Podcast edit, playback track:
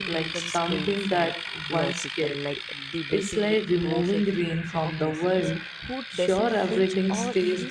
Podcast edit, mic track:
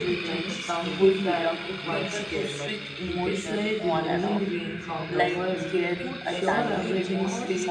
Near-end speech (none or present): present